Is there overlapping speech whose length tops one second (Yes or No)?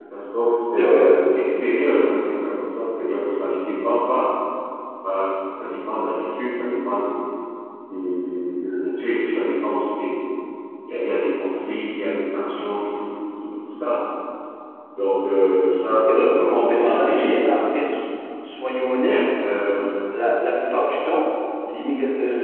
Yes